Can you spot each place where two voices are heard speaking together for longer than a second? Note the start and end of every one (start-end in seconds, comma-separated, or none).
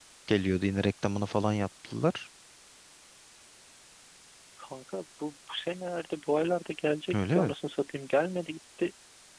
none